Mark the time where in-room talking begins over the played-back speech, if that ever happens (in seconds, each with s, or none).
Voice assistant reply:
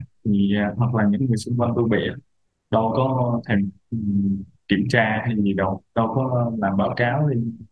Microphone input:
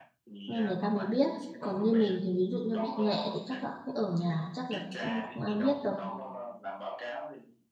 0.5 s